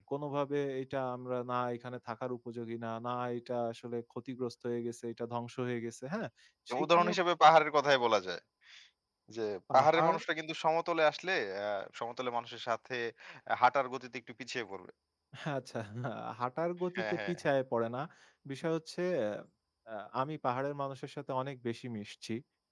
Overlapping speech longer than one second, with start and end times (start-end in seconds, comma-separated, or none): none